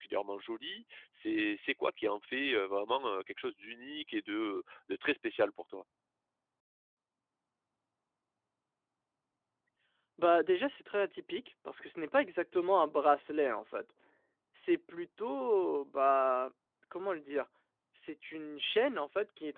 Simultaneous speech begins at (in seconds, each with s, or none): none